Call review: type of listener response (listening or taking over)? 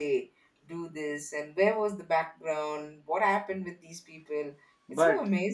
taking over